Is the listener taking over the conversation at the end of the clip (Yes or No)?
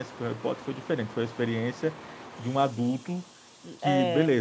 No